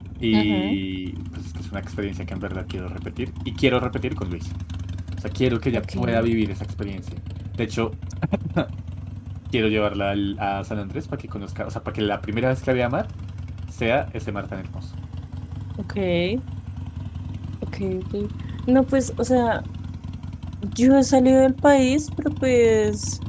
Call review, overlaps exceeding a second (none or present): none